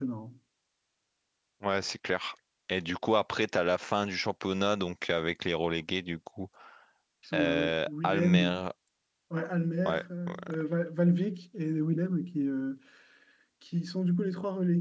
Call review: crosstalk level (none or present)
present